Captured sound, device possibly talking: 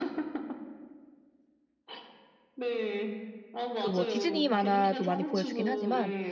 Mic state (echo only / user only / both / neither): both